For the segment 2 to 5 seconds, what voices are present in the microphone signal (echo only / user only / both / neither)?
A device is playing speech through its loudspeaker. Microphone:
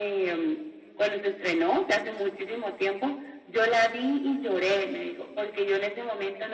echo only